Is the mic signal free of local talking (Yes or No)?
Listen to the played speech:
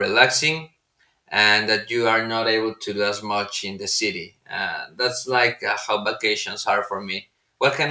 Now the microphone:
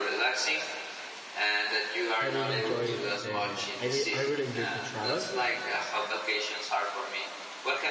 No